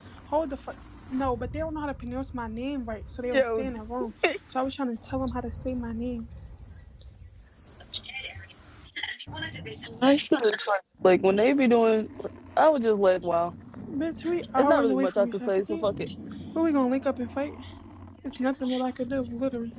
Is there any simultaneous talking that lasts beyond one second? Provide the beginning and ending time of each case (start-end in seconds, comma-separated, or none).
14.6-15.8